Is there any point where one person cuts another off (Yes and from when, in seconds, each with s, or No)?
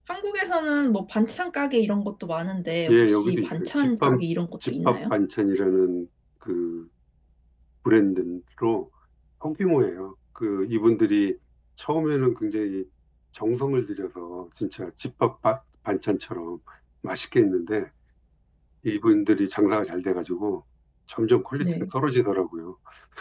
Yes, from 2.9 s